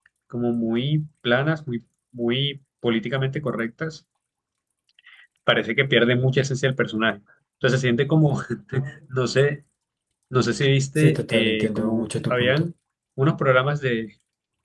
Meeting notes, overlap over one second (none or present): present